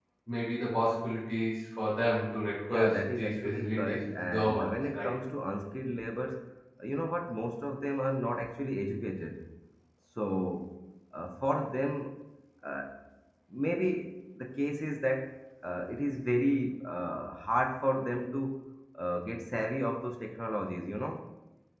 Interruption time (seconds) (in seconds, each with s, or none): 2.7 s